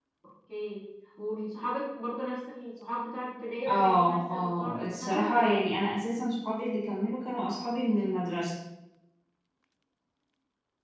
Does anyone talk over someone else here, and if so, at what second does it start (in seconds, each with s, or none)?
3.7 s